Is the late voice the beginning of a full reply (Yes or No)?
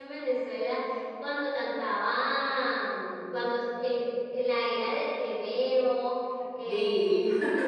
No